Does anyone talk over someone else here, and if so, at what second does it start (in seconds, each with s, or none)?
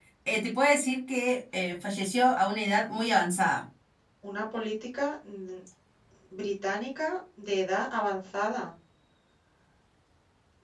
none